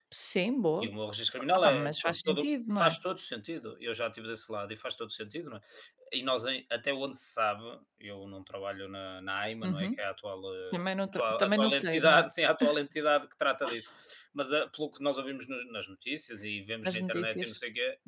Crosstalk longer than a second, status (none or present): present